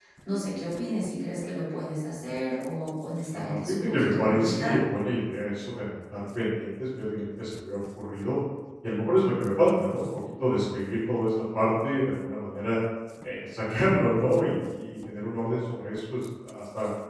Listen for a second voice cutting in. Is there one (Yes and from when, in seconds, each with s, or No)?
Yes, from 3.3 s